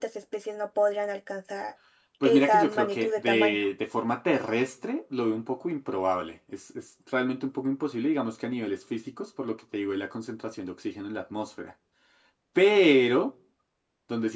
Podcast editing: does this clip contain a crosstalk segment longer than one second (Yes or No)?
Yes